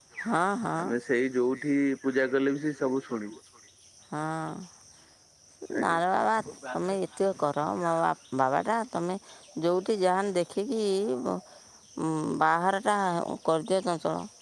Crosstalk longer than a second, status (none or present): none